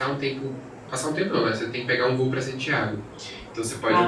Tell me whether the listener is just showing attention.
Yes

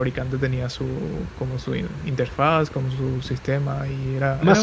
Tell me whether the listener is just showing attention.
No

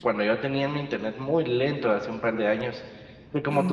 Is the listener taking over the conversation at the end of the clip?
No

